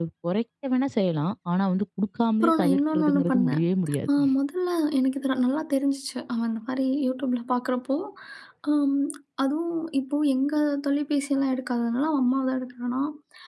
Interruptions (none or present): present